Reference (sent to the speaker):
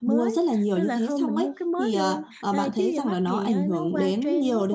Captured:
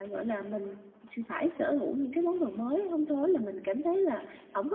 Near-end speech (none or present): present